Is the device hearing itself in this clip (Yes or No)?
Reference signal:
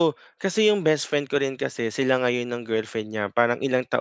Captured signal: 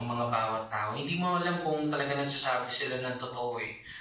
No